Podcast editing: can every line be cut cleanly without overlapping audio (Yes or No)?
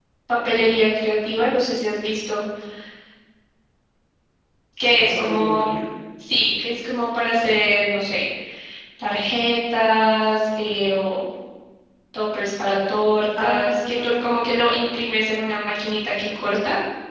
No